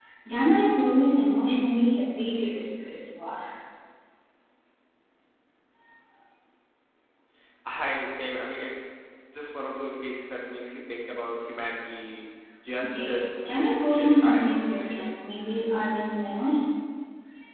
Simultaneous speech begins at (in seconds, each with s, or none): 12.8 s